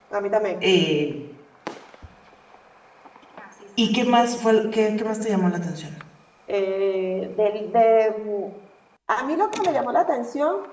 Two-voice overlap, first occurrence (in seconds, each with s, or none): none